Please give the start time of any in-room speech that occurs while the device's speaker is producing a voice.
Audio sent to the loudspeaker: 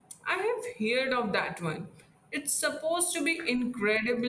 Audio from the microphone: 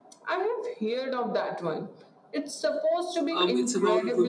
3.3 s

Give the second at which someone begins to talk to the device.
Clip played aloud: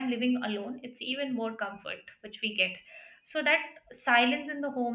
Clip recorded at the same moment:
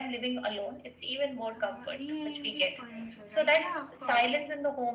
1.5 s

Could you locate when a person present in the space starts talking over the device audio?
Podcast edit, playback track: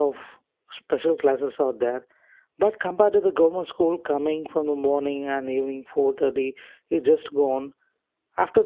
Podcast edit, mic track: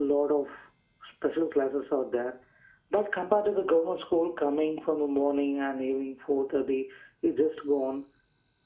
none

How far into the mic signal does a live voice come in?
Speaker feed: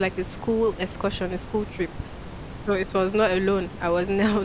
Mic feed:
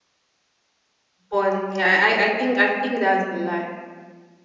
1.3 s

